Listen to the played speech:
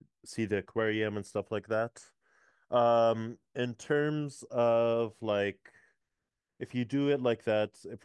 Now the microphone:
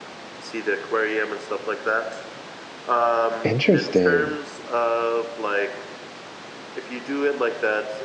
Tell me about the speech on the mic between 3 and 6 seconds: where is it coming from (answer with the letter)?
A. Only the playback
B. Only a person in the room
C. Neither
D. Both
D